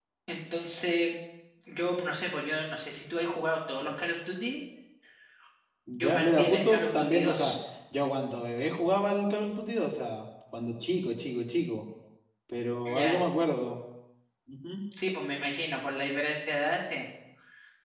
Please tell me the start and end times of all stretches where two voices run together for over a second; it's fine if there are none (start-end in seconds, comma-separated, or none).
6.0-7.5